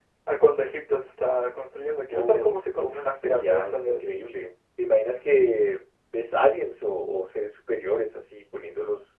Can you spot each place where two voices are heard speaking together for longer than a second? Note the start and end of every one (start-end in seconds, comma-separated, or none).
2.1-4.0